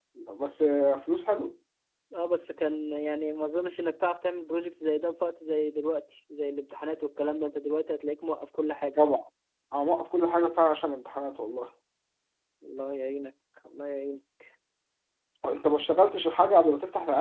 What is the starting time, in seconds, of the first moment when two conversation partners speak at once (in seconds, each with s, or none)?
none